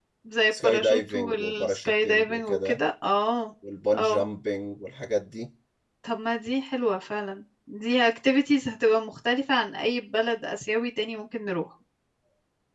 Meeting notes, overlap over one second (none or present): present